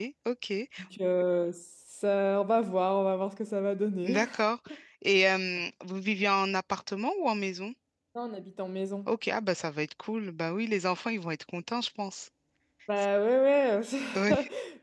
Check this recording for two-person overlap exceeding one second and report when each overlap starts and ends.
none

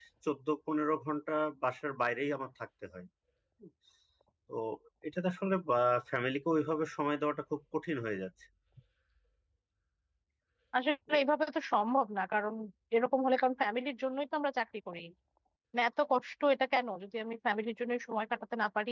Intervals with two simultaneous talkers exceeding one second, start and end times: none

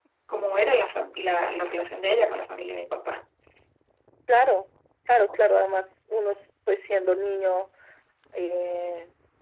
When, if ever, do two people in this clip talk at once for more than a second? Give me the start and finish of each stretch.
none

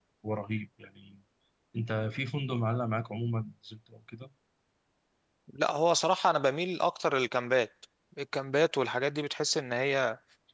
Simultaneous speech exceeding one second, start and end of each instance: none

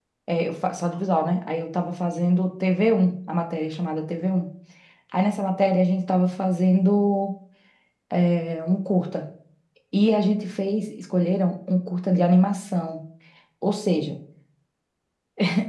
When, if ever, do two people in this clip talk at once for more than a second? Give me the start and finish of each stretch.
none

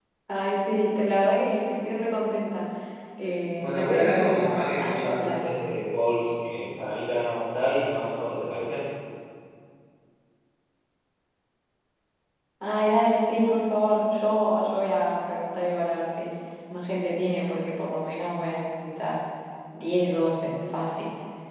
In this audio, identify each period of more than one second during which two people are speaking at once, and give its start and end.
3.6-5.5

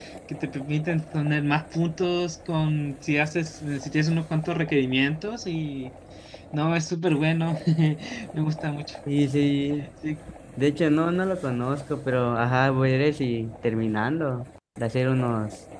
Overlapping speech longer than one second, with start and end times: none

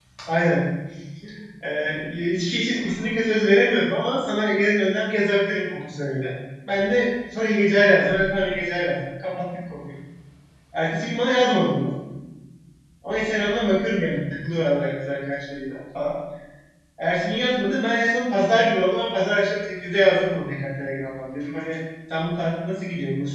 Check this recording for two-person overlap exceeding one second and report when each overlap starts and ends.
none

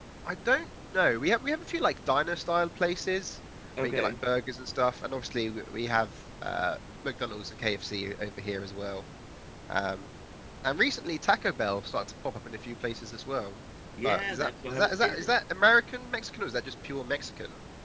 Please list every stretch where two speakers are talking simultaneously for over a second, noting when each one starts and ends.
14.0-15.4

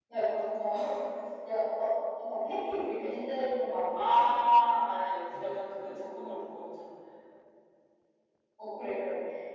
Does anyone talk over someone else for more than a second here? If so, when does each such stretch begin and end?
none

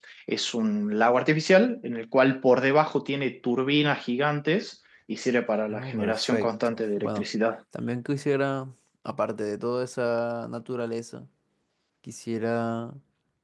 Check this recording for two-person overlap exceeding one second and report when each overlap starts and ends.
5.7-7.2

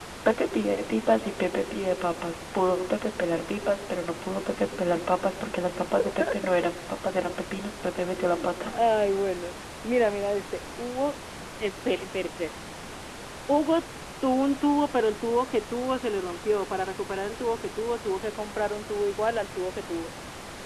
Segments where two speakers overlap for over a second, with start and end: none

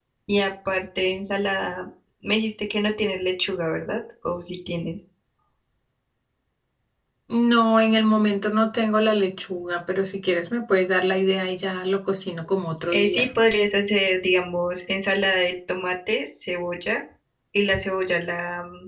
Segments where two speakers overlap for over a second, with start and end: none

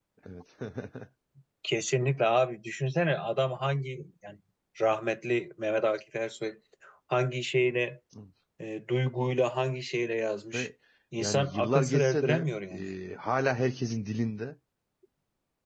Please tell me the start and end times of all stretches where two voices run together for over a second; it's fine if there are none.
11.2-12.5

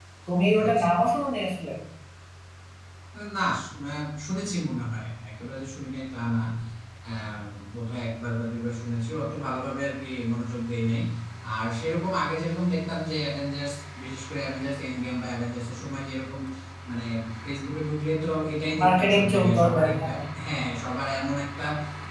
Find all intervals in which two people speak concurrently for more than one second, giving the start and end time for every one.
18.8-20.2

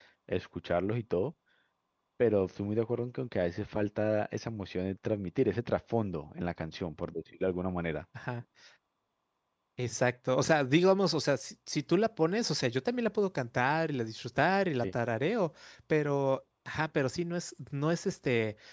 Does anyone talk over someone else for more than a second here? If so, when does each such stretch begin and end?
none

